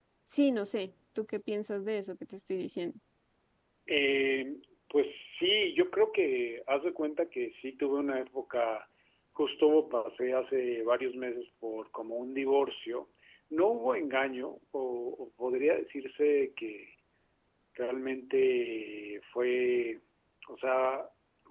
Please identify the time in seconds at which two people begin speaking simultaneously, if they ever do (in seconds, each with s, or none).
none